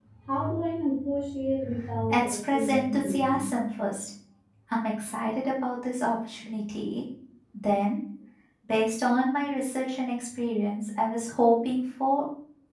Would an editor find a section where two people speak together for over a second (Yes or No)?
Yes